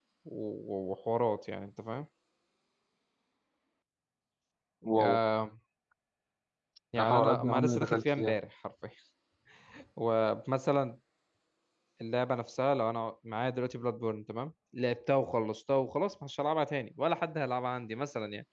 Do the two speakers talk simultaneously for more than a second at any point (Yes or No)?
Yes